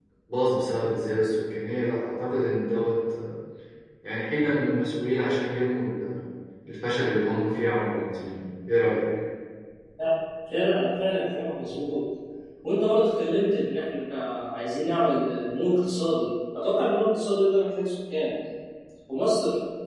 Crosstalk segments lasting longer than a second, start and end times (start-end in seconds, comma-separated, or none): none